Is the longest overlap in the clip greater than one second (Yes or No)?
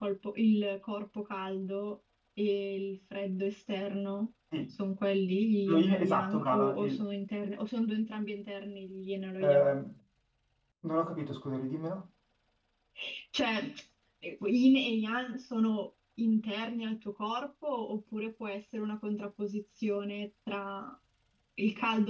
Yes